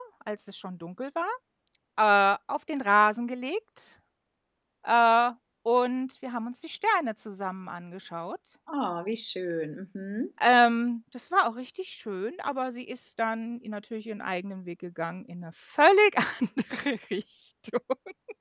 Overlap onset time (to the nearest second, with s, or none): none